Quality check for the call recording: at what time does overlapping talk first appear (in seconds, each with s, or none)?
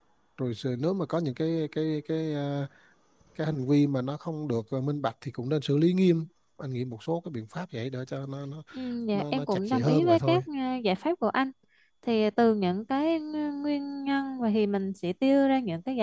9.1 s